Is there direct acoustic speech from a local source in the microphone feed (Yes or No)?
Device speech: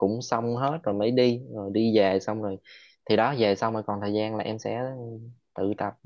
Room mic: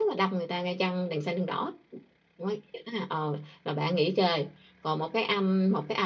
Yes